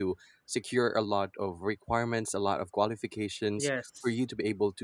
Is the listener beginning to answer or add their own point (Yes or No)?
No